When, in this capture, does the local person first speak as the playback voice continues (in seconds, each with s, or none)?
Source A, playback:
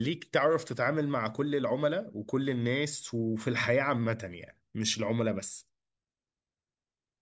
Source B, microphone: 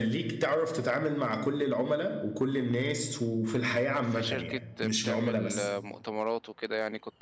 4.0 s